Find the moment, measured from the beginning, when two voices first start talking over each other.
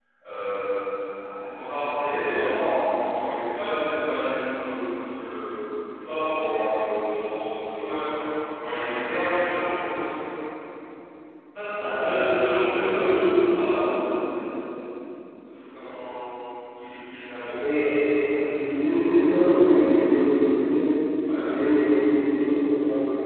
11.8 s

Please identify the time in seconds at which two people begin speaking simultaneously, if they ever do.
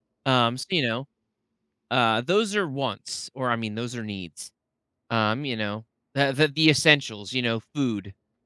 none

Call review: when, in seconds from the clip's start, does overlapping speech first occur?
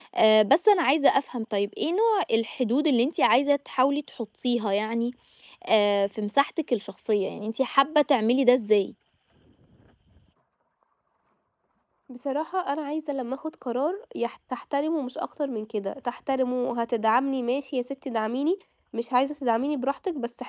none

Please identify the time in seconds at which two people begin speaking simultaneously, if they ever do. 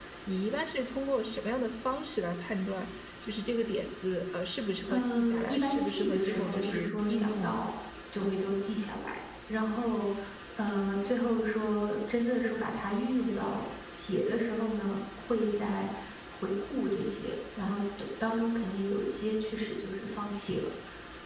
4.9 s

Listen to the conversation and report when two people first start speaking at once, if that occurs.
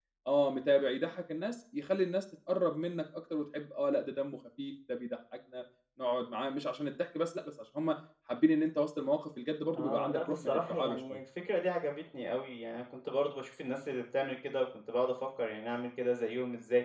9.7 s

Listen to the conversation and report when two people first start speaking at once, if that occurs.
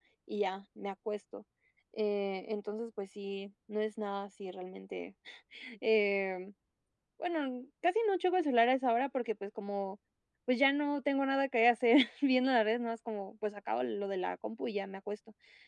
none

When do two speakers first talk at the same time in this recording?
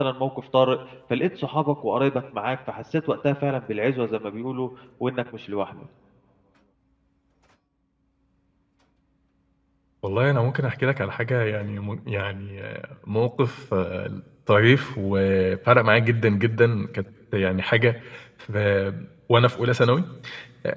none

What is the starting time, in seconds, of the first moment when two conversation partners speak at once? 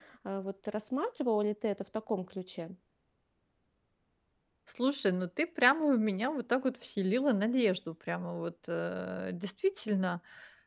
none

